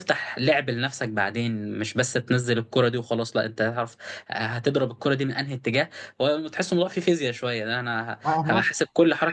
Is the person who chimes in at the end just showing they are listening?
Yes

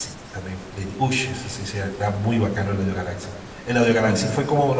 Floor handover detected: No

